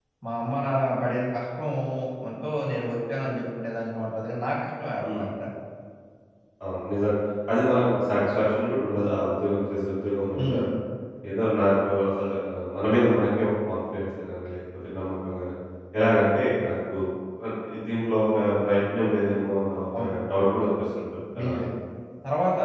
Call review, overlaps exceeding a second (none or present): none